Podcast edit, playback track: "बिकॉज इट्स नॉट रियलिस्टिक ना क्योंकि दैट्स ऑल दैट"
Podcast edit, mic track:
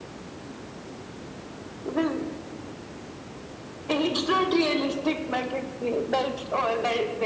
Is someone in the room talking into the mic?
No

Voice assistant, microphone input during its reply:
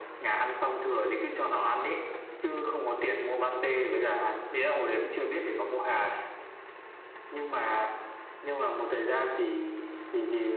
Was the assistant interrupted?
No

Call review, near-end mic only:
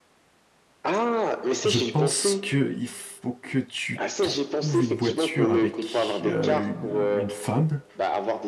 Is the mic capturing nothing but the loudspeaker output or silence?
No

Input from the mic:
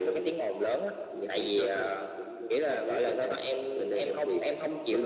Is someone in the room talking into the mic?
No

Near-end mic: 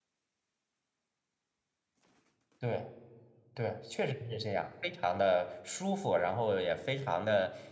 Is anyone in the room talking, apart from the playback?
Yes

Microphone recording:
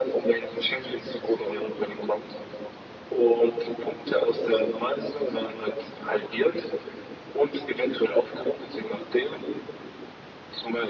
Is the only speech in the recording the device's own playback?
Yes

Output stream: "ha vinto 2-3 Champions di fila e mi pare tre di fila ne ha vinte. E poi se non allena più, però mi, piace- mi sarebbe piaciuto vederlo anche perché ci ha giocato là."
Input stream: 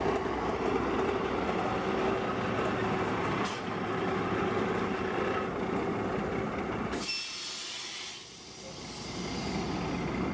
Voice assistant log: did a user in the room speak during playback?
No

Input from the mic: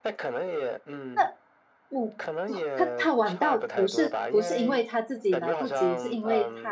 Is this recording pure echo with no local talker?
No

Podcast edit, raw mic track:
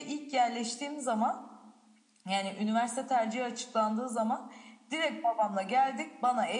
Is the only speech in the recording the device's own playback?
Yes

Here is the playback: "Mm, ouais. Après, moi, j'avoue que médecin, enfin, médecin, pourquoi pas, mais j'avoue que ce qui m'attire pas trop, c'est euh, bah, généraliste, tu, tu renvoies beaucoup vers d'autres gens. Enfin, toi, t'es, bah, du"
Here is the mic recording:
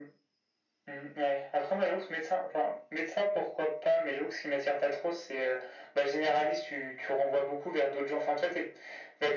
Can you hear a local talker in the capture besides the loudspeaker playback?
No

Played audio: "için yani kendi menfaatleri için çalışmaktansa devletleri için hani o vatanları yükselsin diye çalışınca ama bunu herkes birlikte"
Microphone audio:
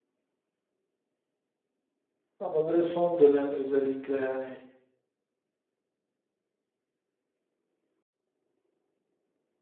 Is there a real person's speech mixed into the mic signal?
Yes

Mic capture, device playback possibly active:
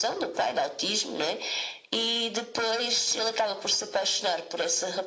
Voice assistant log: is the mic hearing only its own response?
Yes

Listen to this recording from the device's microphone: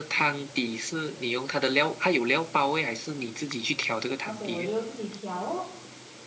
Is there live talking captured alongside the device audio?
Yes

